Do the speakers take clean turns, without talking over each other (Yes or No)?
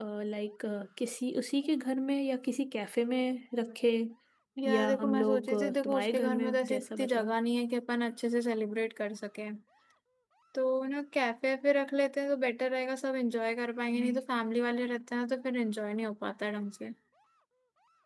No